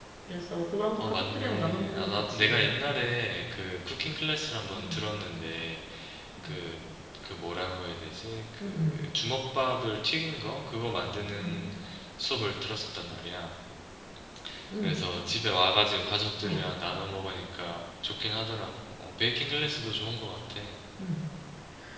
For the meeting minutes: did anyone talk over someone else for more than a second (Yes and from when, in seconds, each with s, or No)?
Yes, from 1.0 s